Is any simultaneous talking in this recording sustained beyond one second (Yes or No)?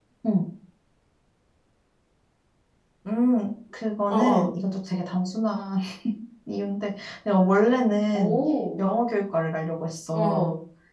No